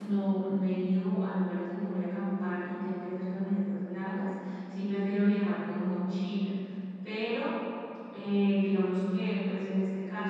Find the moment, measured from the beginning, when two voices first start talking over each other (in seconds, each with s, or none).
none